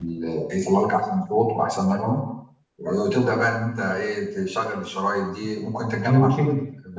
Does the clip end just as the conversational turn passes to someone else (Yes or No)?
Yes